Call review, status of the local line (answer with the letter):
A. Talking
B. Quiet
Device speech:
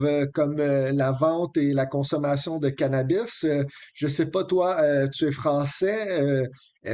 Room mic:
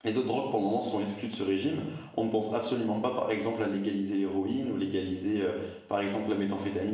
A